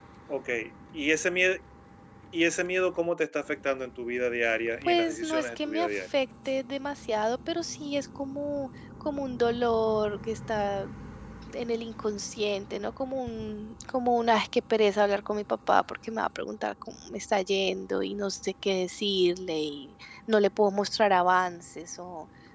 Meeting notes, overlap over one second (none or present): present